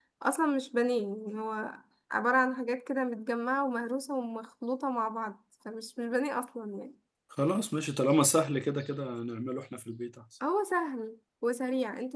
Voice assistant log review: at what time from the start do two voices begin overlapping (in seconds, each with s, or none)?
none